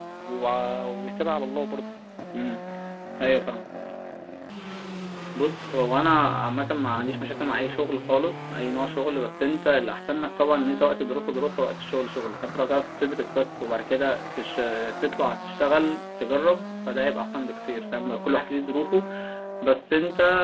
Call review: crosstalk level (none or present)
none